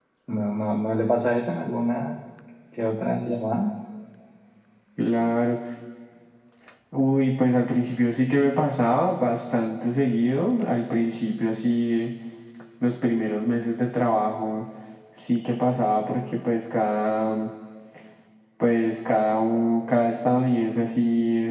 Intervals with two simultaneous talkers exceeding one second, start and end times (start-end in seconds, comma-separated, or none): none